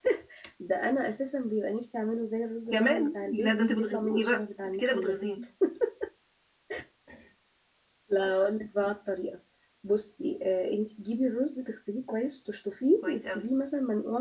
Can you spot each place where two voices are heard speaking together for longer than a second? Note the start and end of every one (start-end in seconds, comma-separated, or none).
2.7-5.2